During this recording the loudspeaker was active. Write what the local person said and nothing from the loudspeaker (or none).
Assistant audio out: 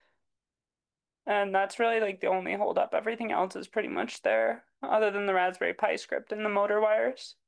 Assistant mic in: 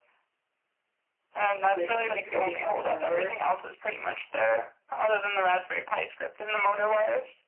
with any coding whatsoever.